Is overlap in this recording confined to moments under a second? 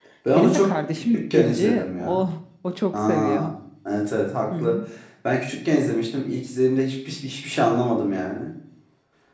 No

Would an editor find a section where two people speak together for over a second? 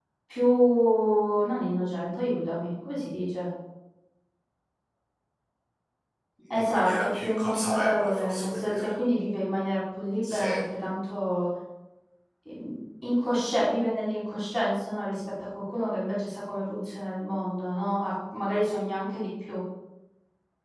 Yes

